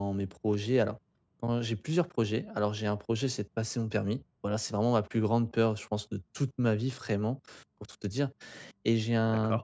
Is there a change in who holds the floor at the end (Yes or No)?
No